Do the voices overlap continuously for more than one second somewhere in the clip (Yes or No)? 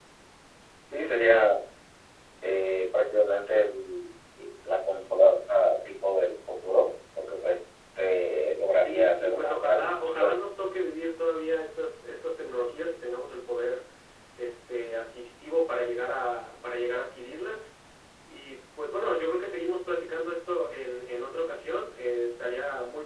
Yes